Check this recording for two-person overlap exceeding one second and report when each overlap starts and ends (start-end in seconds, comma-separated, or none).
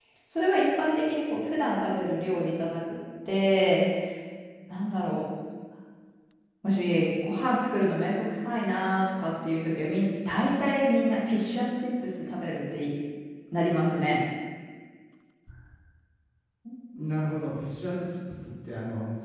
none